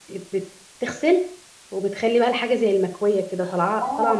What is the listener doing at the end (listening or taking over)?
taking over